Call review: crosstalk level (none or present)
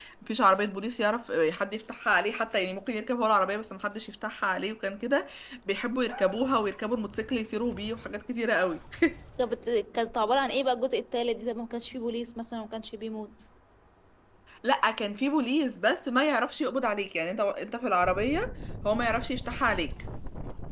none